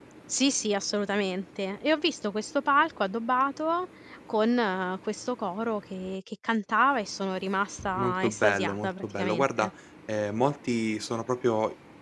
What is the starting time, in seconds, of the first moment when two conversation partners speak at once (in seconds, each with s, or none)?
8.0 s